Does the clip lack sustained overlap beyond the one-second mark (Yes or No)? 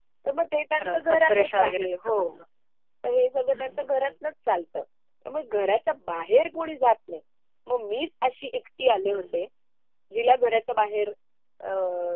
No